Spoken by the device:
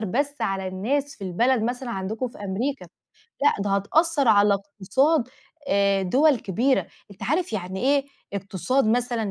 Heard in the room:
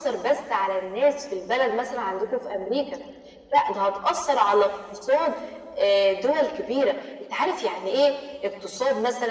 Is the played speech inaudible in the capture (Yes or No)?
No